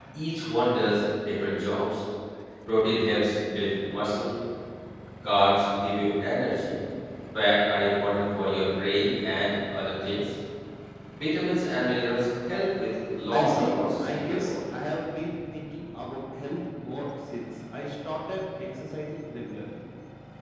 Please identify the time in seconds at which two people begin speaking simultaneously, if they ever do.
13 s

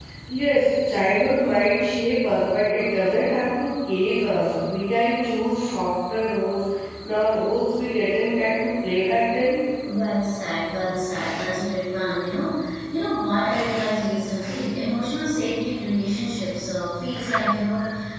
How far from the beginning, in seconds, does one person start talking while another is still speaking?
none

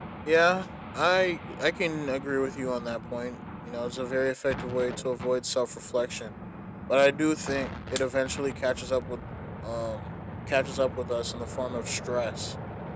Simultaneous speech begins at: none

